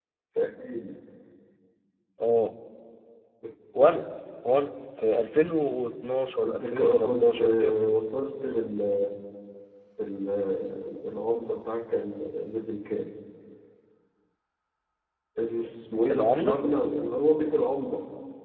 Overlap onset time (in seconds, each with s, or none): 6.4 s